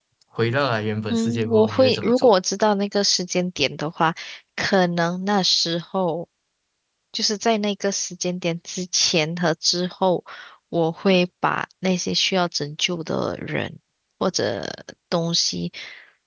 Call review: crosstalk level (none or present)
present